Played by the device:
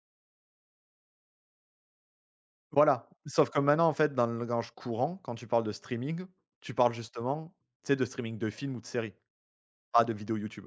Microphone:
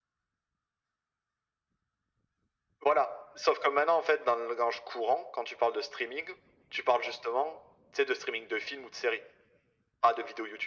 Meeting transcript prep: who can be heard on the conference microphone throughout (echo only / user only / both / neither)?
echo only